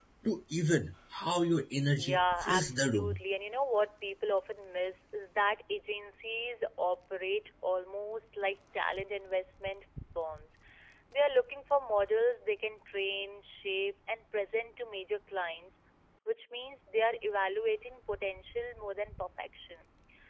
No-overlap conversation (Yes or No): No